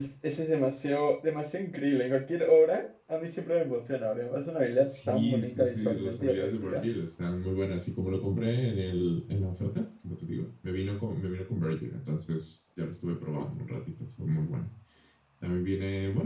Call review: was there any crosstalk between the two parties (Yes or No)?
Yes